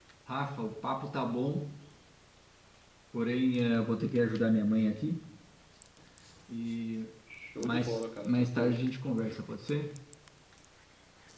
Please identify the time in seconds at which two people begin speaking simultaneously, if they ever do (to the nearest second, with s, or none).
8 s